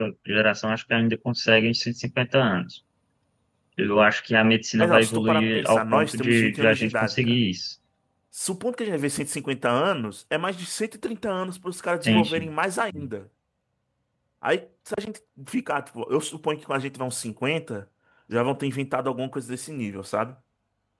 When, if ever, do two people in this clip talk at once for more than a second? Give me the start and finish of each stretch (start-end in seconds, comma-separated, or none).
4.8-7.4